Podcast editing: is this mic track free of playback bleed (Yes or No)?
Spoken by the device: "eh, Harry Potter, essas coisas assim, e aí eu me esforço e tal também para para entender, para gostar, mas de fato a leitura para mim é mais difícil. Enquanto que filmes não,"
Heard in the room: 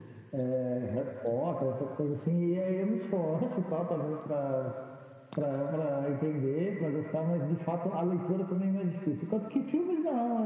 No